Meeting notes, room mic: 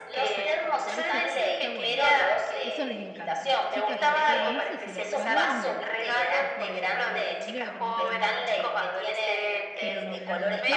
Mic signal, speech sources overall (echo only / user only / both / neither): both